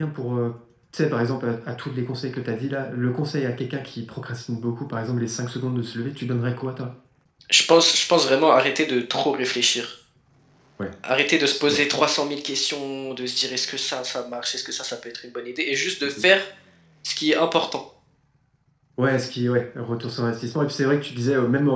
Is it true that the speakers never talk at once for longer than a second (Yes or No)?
Yes